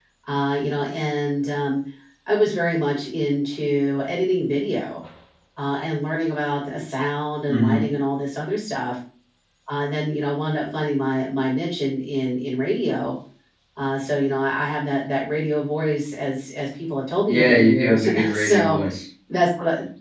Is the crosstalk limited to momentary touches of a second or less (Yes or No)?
No